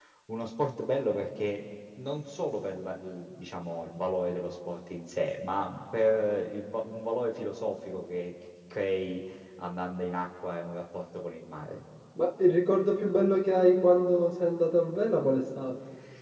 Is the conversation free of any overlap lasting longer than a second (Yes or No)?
Yes